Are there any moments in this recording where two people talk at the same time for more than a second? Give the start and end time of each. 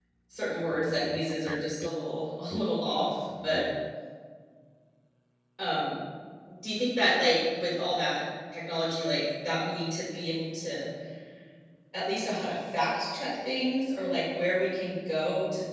0.7-1.9

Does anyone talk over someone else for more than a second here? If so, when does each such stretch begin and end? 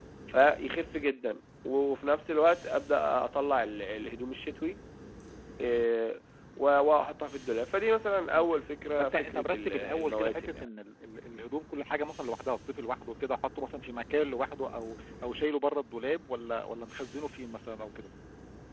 9.0-10.6

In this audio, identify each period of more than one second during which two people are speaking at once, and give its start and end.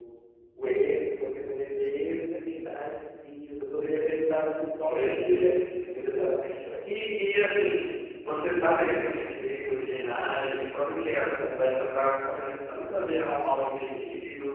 4.8-6.3

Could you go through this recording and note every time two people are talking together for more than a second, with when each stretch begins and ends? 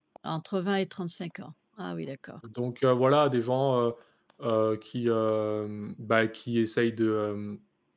none

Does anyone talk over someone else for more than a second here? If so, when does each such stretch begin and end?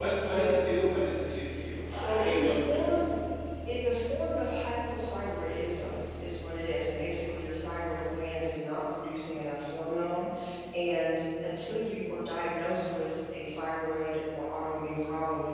1.9-3.2

